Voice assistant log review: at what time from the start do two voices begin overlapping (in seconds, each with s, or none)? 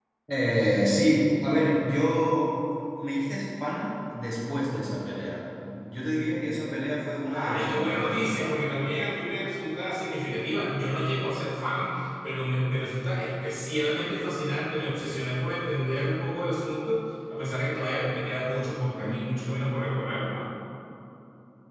7.3 s